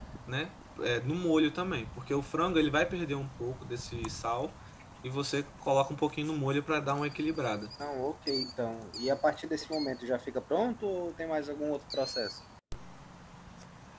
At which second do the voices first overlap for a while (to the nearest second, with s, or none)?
none